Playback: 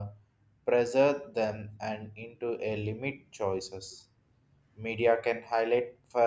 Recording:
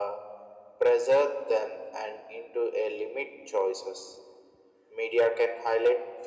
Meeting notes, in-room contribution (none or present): none